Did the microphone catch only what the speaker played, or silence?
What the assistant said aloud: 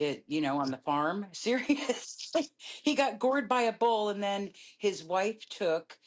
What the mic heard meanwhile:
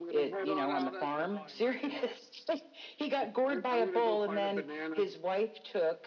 No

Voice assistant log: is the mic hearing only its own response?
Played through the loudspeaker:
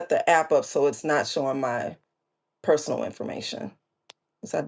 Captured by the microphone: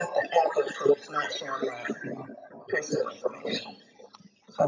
Yes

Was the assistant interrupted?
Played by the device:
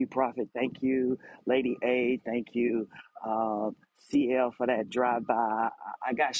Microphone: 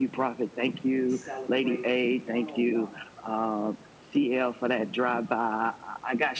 Yes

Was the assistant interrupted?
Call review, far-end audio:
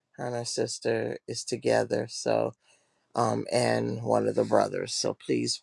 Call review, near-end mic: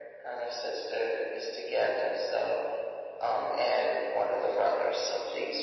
No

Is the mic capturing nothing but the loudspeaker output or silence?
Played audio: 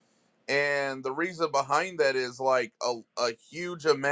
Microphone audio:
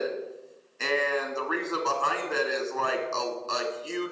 Yes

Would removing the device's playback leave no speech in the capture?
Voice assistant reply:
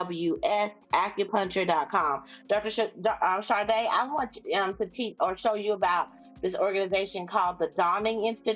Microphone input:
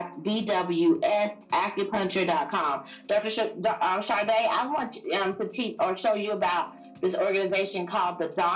Yes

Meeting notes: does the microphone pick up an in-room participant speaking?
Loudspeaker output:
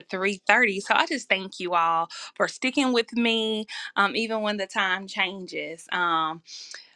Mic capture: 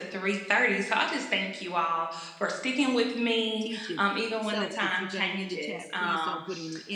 Yes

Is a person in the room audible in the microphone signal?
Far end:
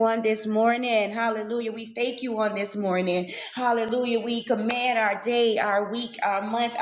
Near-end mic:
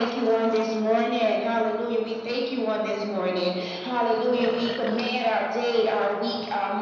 No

